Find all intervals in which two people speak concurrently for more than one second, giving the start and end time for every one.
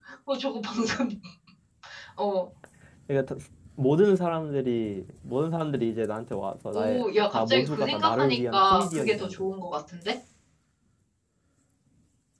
6.7-9.5

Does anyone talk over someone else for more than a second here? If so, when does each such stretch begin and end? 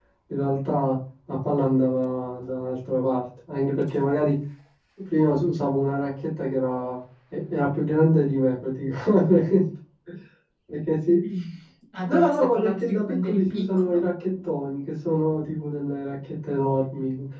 12.0-14.1

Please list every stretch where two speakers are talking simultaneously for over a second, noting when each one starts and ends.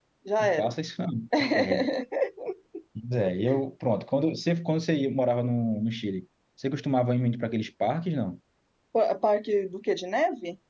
none

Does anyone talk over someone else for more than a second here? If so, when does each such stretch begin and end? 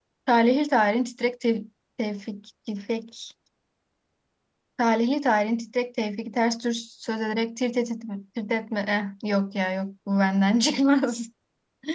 none

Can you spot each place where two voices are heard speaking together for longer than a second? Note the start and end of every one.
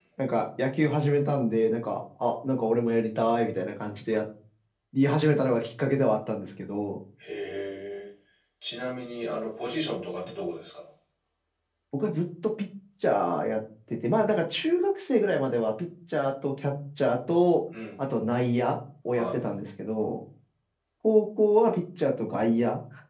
none

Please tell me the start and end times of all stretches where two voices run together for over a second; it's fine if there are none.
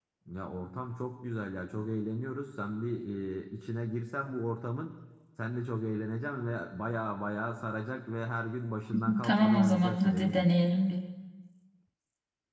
9.2-10.4

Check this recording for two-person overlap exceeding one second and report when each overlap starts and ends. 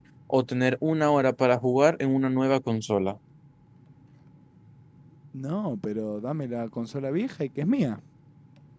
none

